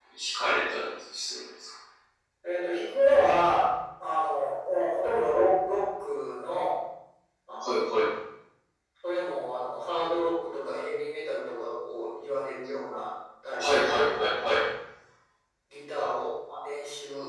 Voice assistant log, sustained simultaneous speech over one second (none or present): none